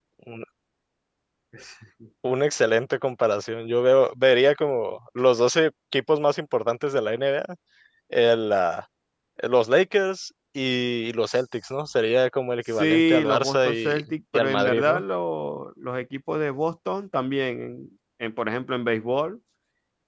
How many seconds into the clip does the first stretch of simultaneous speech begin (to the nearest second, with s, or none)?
13 s